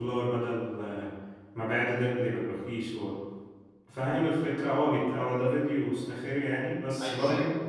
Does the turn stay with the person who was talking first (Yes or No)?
Yes